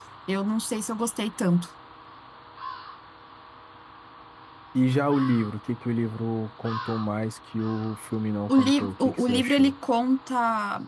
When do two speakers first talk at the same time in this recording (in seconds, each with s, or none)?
8.5 s